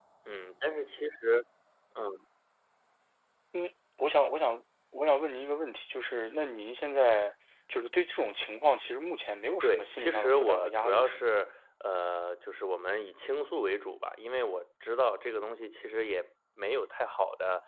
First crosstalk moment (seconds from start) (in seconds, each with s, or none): 9.6 s